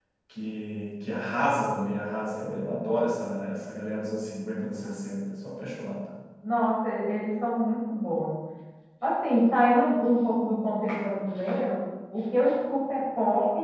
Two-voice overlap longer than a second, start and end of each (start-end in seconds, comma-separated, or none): none